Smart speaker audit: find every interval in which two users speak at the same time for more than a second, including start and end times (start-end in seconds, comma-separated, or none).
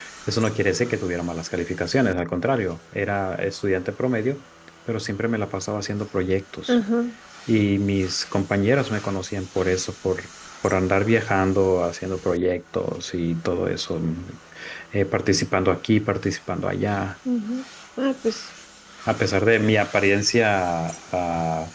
none